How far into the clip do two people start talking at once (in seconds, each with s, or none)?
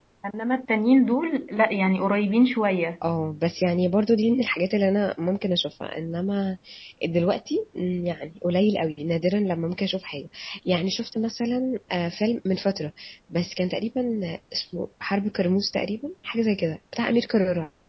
none